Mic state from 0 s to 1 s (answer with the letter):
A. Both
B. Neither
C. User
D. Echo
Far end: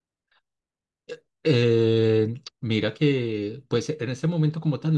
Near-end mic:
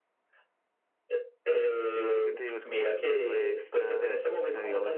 B